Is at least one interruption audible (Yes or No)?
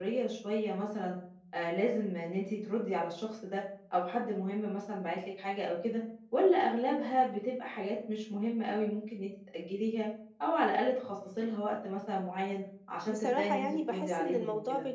Yes